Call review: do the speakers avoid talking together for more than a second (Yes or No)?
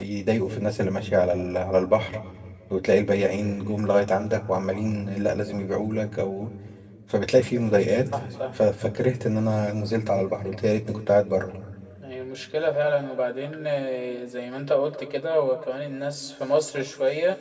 Yes